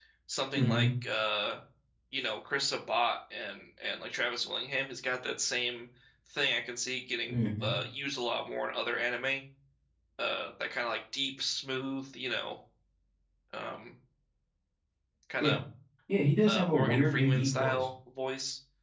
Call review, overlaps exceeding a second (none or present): present